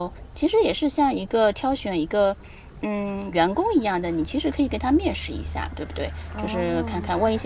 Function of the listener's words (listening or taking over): listening